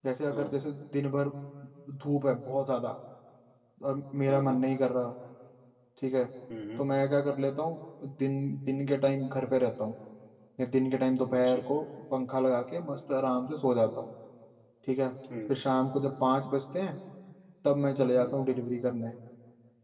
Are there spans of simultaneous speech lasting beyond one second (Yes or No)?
No